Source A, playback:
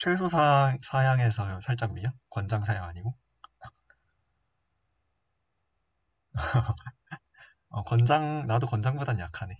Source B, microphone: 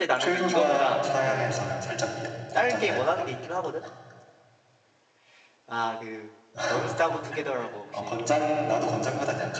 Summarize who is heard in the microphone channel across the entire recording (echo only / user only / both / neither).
both